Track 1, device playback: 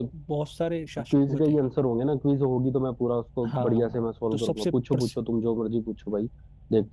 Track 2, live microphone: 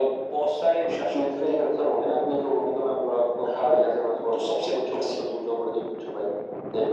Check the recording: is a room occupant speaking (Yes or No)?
No